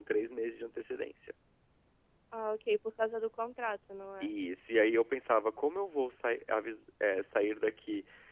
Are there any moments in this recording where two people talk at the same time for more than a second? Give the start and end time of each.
none

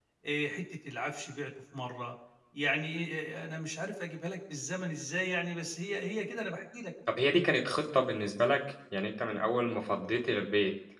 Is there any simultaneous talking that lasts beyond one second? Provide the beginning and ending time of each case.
none

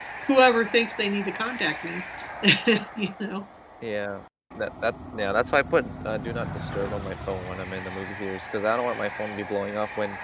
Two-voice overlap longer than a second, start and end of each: none

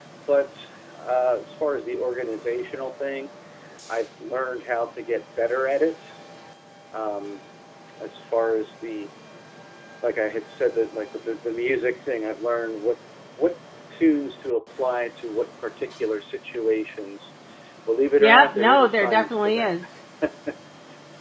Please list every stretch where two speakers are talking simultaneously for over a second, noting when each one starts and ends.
18.2-19.7

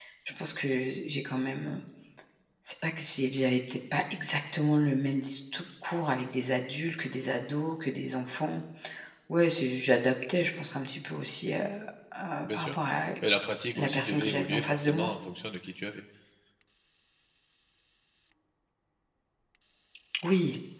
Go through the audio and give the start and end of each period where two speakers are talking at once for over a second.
13.8-15.1

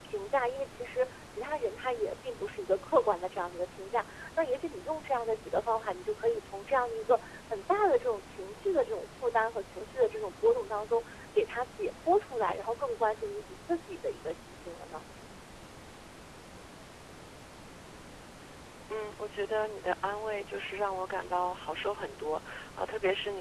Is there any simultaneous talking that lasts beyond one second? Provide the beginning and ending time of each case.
none

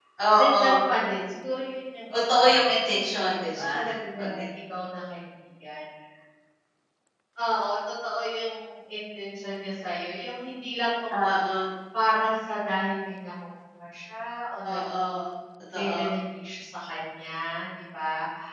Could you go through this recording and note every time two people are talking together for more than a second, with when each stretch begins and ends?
2.3-3.6

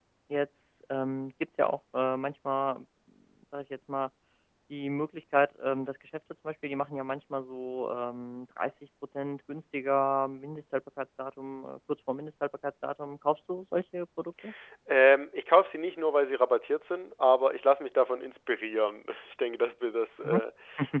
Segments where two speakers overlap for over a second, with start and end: none

